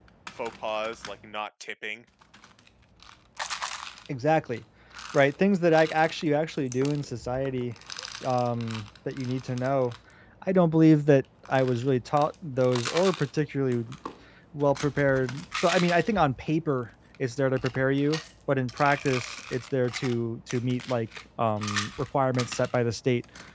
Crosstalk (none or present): none